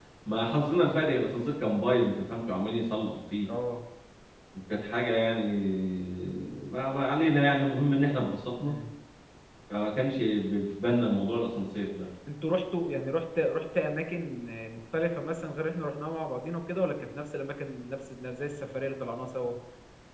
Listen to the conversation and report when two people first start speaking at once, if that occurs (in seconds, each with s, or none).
none